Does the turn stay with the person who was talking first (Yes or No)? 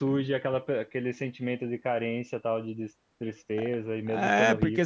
No